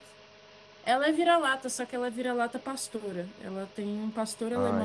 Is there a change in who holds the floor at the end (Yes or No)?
Yes